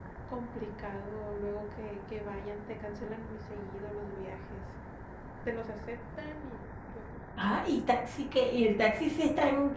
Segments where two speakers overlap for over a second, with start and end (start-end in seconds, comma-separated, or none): none